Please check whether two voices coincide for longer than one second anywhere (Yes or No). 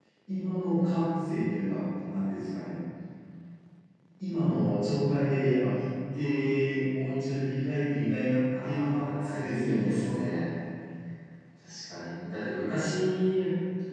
Yes